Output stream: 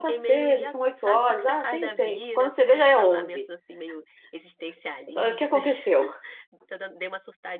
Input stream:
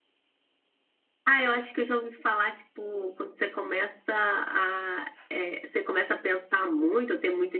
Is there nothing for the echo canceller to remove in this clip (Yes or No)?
Yes